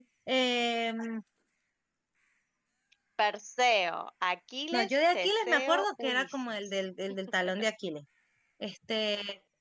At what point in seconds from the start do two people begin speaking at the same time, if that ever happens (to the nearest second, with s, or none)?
5 s